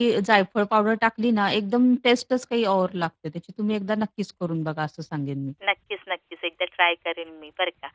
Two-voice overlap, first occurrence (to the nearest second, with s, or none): none